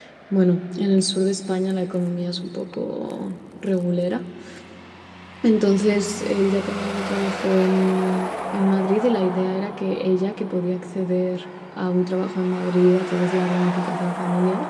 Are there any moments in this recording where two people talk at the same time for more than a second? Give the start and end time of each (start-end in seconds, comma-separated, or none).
none